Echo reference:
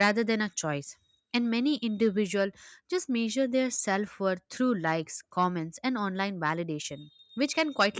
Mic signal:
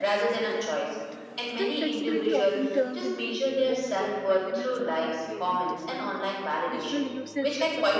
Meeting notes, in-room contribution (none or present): present